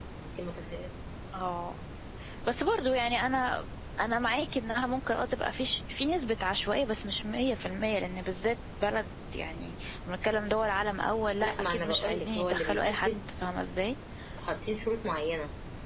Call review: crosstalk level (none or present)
present